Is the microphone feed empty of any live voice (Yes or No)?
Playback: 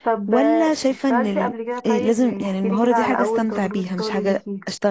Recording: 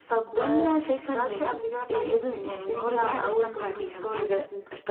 Yes